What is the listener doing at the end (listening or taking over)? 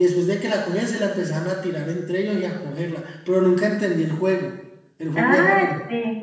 taking over